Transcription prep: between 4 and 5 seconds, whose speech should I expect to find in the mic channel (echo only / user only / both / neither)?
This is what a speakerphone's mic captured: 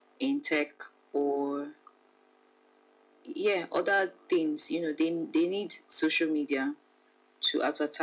echo only